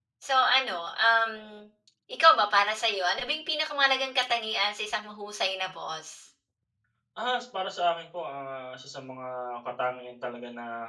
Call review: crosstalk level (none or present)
none